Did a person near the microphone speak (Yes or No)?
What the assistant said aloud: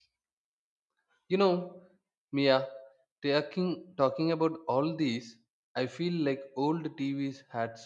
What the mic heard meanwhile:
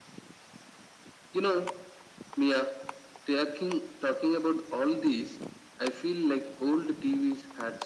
No